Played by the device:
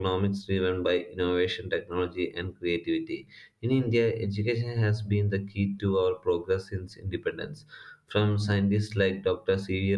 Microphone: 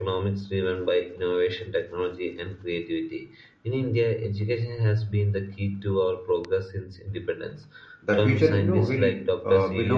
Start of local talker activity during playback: 8 s

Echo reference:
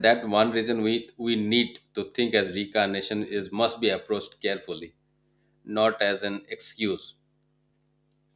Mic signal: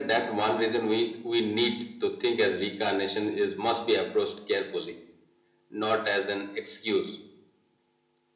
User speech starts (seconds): none

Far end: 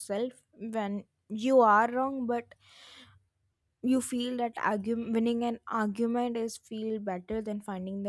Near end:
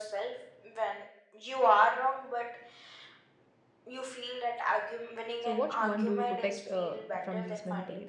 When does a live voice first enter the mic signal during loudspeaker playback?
5 s

